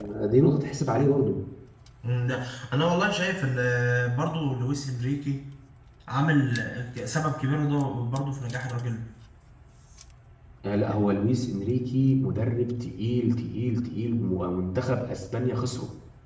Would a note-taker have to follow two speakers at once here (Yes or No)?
No